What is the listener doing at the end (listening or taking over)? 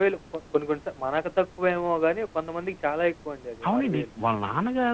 taking over